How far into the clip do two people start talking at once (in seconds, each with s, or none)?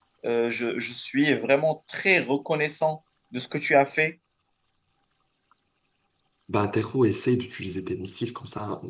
none